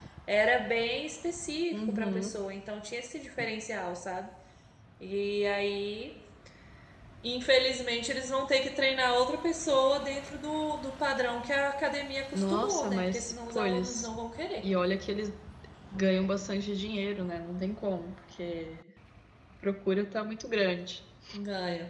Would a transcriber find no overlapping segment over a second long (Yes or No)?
No